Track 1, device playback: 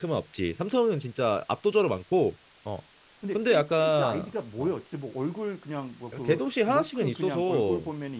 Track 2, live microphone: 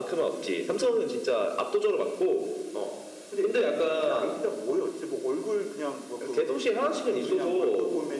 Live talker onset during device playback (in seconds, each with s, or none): none